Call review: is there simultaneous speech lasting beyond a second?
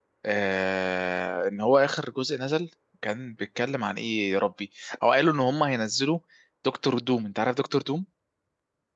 No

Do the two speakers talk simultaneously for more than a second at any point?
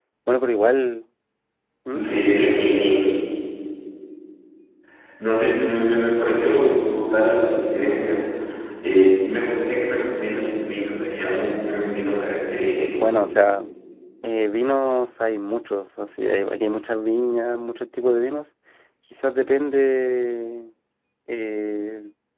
No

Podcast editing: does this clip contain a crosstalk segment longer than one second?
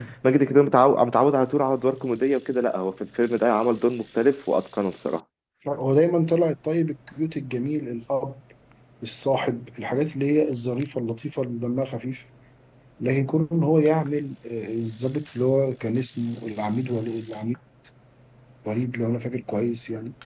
No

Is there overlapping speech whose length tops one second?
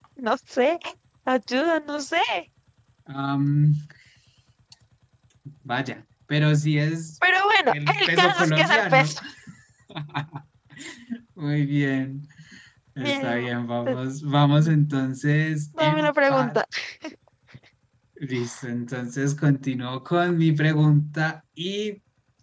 Yes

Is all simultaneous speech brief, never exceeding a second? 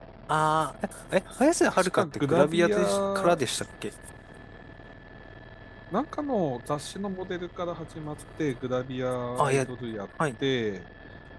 No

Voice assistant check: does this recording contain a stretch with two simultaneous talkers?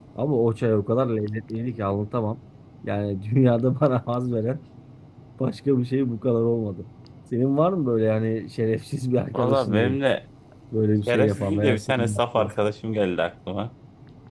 Yes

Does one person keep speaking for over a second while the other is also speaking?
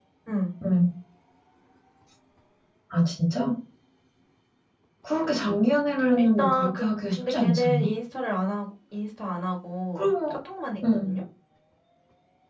Yes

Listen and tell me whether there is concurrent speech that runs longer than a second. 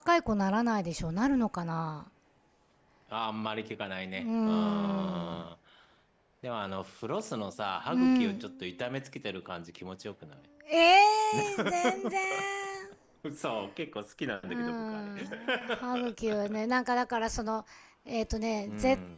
Yes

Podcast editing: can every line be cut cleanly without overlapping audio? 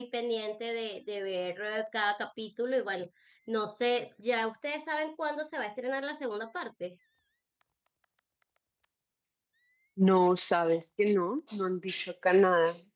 Yes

